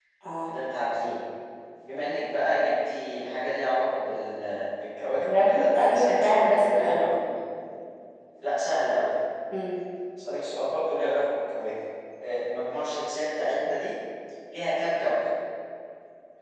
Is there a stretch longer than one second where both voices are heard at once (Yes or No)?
Yes